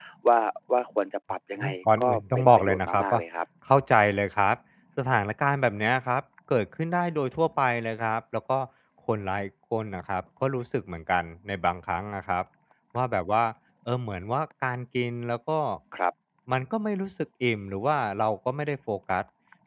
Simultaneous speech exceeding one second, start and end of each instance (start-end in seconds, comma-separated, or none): 1.6-3.2